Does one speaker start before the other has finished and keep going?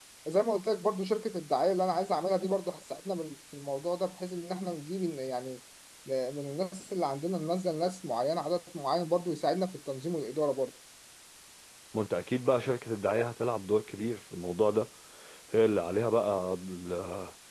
No

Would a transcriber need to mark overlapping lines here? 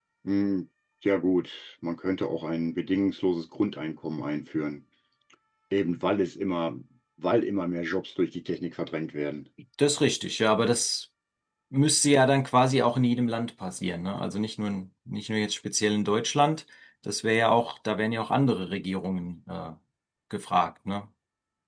No

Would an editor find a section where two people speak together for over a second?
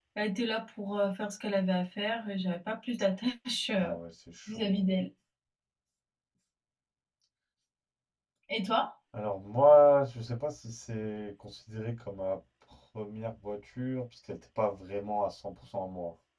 No

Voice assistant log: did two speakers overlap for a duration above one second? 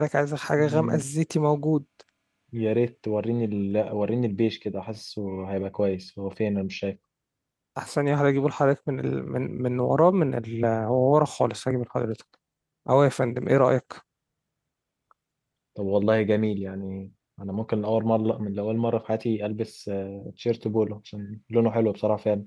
No

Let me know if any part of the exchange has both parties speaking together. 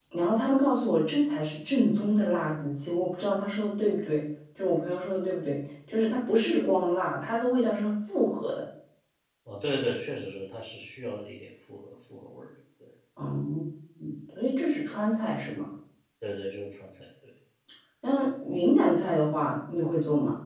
No

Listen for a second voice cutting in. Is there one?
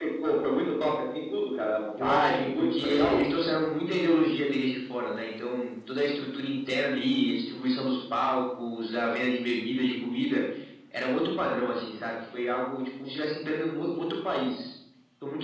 Yes, from 2.0 s

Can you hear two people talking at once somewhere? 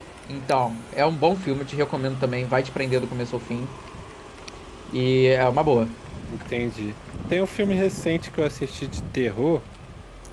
No

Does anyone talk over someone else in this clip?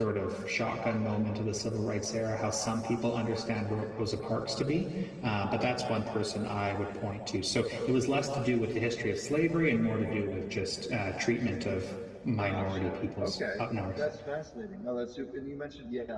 Yes, from 12.4 s

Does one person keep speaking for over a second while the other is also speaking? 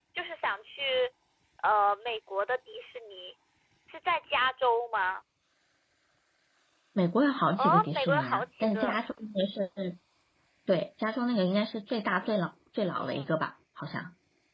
Yes, from 7.6 s

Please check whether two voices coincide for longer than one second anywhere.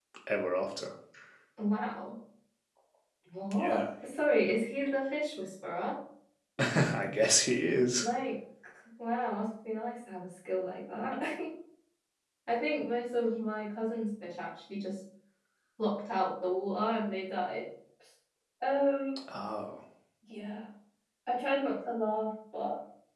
No

